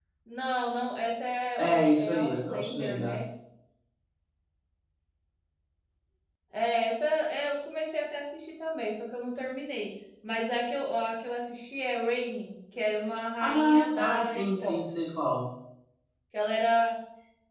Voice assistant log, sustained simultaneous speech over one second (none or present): present